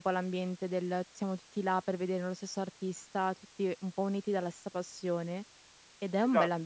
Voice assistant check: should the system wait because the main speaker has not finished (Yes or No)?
Yes